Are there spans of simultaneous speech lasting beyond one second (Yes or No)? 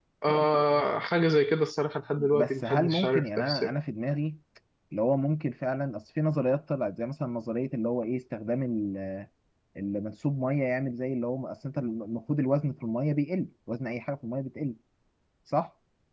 Yes